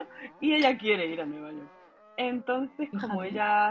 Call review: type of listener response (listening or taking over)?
listening